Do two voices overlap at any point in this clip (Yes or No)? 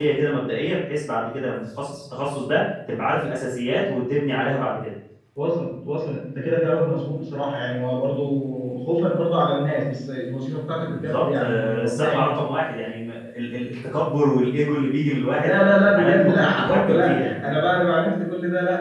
Yes